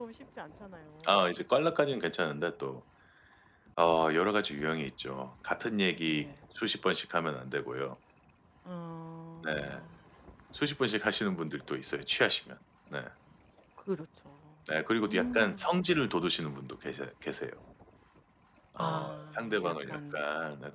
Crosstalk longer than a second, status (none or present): present